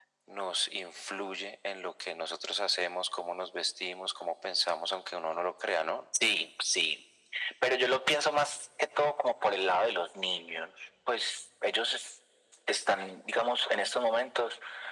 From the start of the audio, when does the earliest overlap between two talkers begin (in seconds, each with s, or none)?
none